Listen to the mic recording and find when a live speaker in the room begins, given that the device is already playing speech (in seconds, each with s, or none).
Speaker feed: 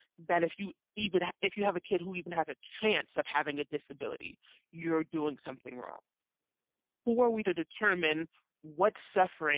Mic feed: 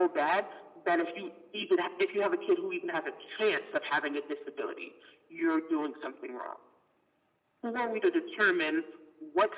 none